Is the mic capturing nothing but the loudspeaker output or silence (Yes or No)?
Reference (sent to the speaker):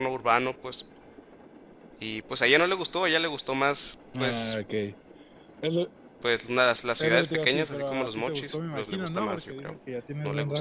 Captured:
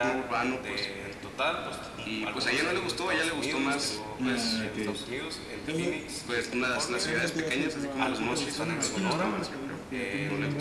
No